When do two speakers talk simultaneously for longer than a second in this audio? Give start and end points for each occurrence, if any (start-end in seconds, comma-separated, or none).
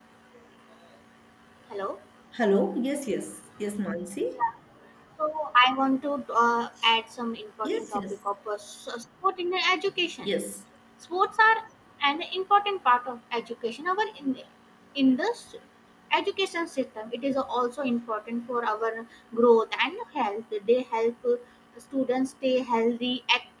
none